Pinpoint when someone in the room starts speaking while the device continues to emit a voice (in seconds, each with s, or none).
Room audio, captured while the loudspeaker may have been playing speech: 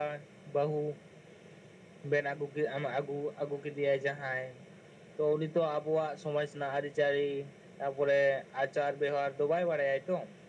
none